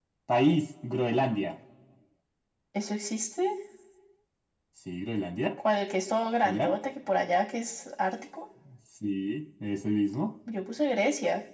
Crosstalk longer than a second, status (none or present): none